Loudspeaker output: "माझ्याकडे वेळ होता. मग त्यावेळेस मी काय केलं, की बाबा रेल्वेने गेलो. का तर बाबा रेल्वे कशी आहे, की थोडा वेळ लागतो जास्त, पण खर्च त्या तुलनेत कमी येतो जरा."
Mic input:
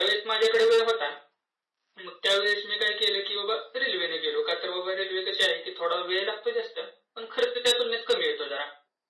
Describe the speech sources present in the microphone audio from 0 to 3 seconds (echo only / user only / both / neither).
echo only